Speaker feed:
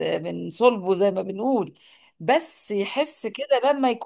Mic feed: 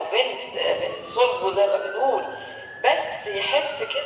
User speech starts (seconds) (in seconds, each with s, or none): none